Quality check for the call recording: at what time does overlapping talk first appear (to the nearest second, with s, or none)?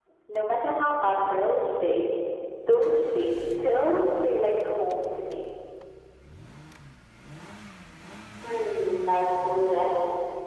none